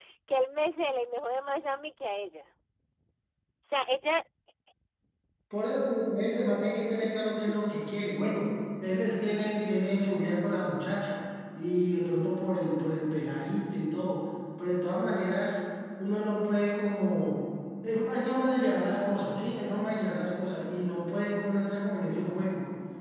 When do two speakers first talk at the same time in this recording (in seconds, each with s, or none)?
none